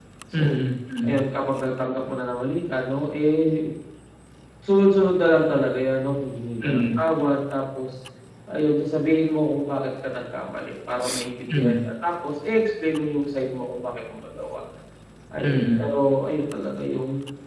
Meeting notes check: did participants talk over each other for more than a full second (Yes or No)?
No